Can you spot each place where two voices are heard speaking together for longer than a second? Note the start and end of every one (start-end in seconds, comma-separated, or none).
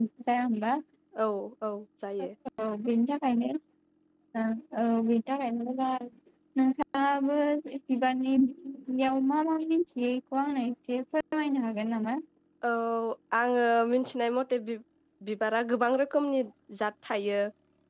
none